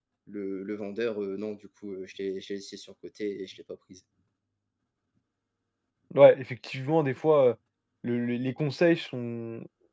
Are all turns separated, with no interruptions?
Yes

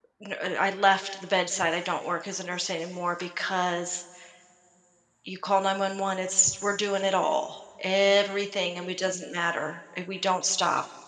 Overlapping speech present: No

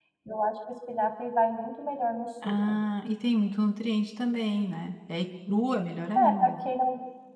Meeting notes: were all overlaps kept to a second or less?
Yes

